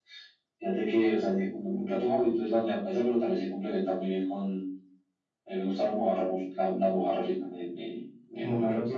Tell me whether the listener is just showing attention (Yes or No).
Yes